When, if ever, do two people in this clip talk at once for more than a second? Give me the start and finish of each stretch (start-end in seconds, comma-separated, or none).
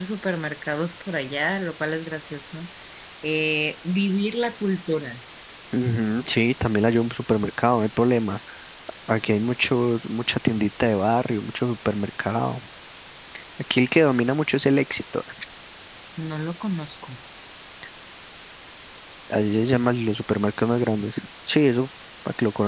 none